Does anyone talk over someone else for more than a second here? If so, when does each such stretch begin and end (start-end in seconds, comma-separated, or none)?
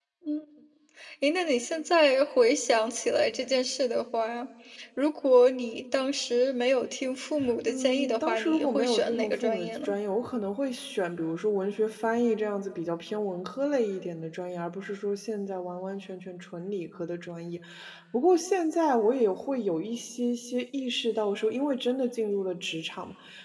7.7-10.0